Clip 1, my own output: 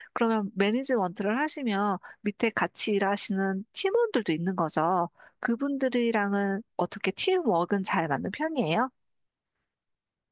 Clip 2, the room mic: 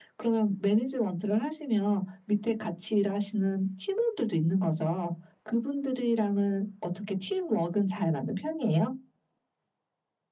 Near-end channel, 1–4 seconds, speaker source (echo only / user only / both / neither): echo only